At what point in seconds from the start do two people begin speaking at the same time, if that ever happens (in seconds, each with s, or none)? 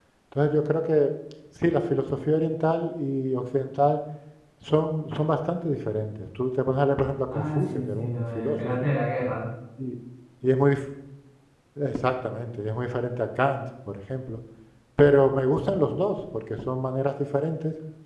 7.3 s